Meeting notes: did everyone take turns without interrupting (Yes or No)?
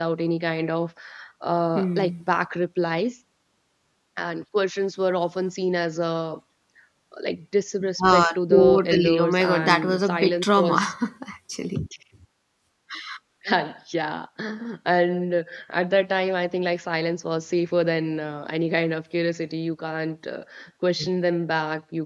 No